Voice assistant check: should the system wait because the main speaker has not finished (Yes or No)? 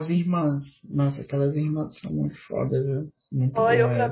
No